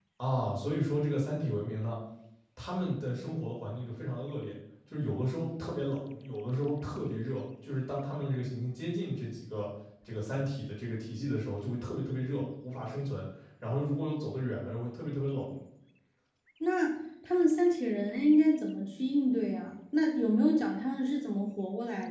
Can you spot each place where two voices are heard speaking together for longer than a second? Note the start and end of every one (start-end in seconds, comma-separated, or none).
none